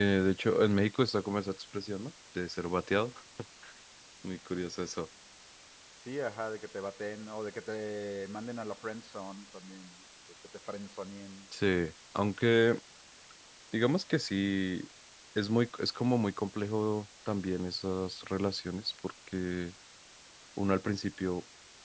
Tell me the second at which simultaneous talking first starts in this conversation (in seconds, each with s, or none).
none